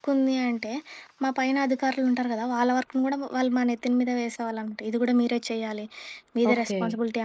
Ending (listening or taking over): listening